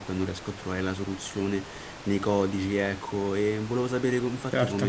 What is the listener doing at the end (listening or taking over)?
listening